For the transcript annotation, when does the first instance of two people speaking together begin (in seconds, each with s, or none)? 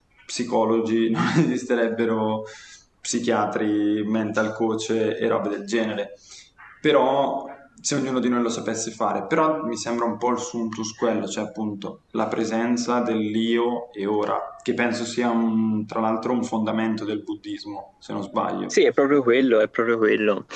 none